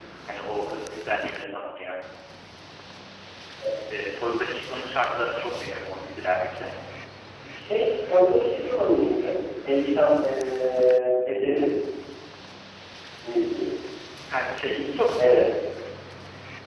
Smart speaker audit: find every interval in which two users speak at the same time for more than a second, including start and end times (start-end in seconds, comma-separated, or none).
none